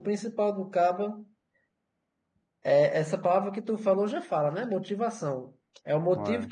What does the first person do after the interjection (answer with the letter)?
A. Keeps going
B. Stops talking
A